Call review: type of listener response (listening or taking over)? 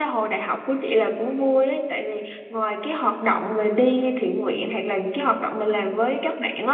listening